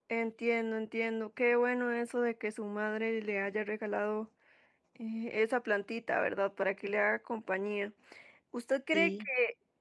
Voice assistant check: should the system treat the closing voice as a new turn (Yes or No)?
No